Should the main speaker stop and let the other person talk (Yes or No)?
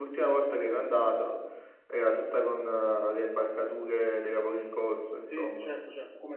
Yes